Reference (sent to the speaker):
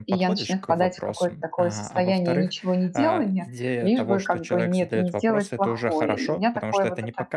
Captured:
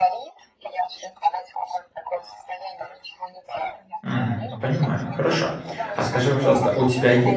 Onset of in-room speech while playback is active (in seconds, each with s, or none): 4.0 s